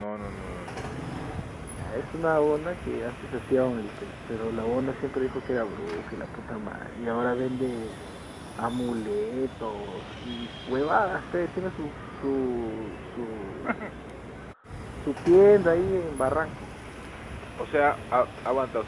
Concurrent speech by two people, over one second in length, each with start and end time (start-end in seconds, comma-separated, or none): none